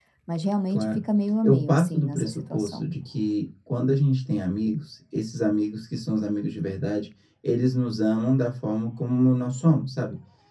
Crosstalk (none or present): present